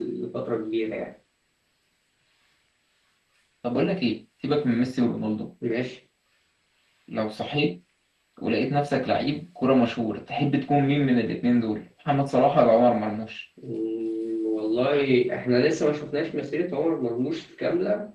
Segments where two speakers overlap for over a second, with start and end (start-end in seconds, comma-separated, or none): none